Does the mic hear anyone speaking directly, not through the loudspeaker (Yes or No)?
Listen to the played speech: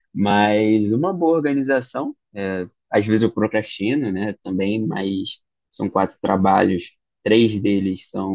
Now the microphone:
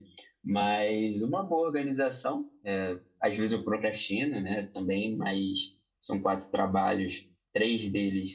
No